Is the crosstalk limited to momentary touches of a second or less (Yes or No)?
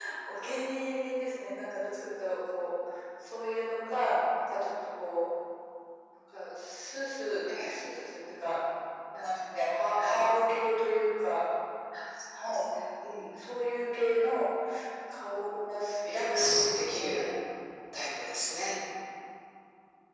No